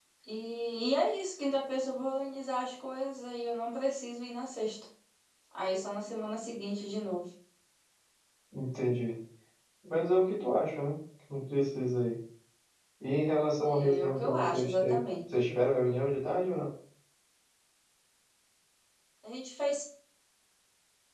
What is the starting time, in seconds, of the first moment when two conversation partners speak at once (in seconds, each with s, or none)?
13.7 s